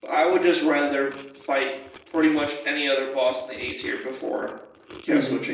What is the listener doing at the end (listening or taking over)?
taking over